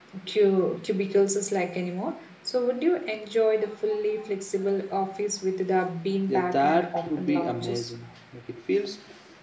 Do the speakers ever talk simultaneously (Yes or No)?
Yes